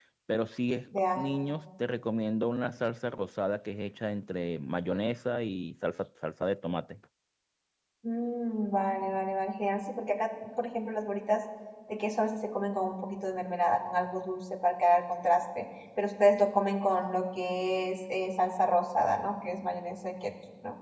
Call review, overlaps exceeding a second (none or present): none